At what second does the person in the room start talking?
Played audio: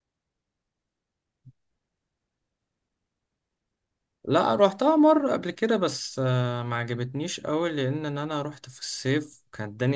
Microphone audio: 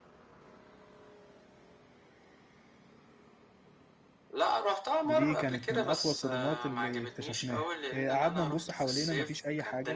5.0 s

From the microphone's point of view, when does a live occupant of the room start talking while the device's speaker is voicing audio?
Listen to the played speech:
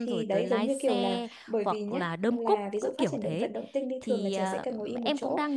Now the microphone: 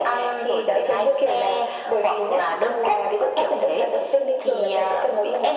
none

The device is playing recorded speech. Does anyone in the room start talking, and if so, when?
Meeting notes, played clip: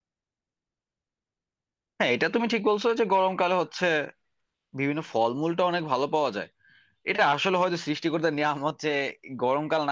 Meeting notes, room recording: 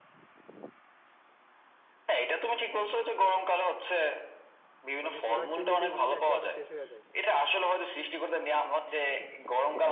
5.0 s

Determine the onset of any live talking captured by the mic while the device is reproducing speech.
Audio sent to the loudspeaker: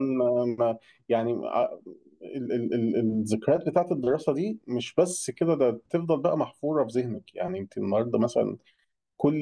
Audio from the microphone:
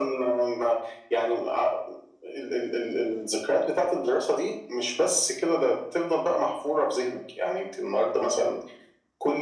none

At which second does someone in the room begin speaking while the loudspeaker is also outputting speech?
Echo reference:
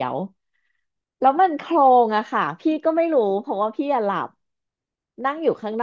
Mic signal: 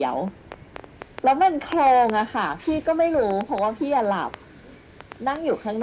none

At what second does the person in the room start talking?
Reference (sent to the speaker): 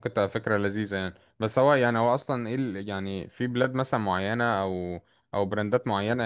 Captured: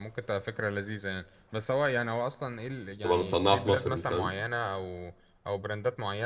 3.0 s

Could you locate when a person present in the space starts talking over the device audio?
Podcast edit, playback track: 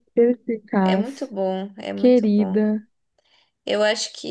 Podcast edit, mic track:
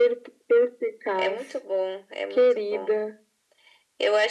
none

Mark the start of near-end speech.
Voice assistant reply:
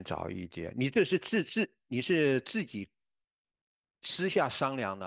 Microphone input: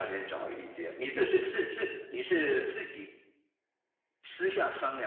none

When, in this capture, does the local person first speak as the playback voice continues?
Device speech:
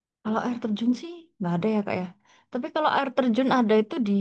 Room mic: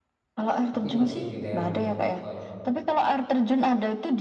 0.7 s

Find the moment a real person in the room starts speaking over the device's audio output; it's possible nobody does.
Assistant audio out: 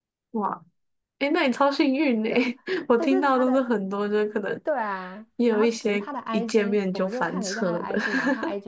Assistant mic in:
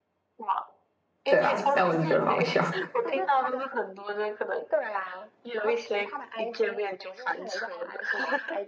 1.3 s

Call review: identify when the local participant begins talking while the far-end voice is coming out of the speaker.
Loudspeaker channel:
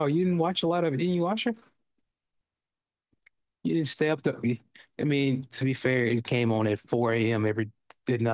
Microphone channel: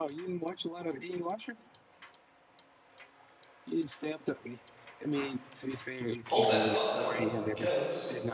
6.2 s

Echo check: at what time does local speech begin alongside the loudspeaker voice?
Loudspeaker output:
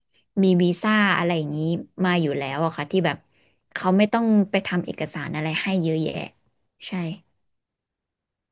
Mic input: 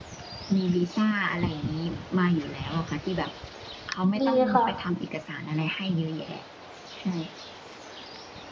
4.2 s

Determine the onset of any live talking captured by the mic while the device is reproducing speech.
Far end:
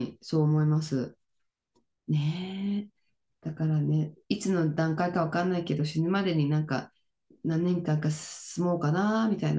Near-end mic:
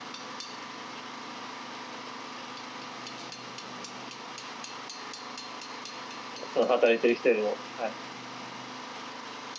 6.5 s

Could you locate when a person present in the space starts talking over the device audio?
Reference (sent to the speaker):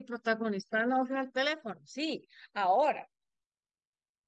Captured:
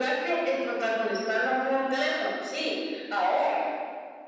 none

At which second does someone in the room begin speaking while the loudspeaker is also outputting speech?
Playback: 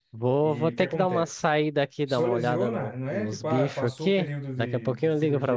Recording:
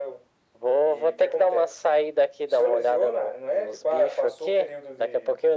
none

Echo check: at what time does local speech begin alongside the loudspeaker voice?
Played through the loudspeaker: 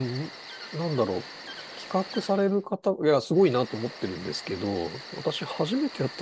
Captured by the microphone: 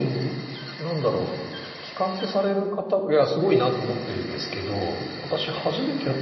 none

